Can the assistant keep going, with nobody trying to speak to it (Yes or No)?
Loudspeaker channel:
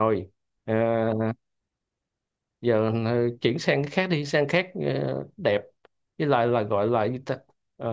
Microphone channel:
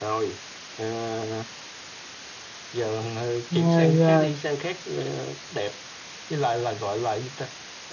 No